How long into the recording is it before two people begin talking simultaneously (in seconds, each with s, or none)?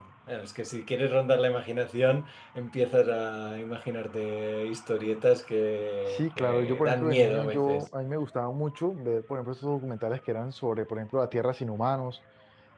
6.1 s